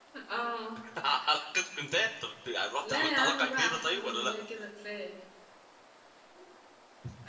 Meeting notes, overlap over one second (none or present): present